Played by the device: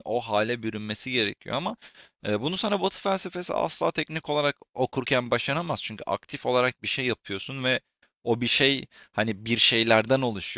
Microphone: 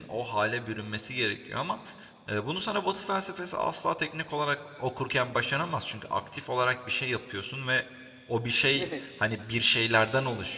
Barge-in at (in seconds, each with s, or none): 8.7 s